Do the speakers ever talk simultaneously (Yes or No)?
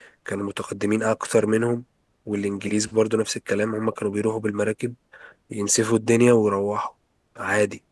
No